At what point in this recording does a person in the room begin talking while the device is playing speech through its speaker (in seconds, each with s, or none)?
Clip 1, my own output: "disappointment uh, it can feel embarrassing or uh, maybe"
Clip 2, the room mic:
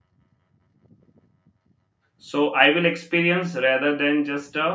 2.2 s